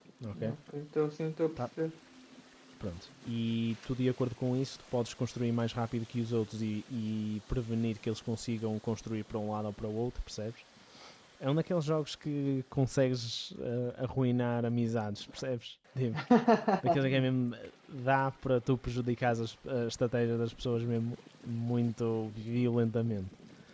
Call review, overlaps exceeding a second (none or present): none